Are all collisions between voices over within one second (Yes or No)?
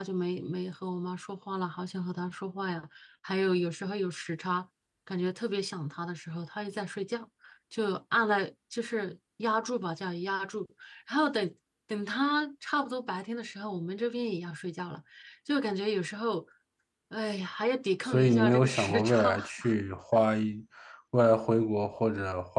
No